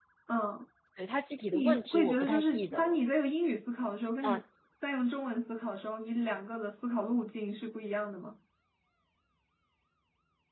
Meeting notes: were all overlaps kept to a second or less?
No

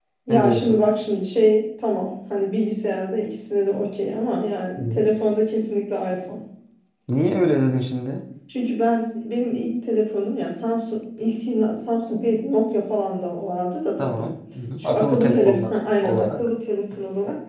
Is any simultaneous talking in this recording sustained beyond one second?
Yes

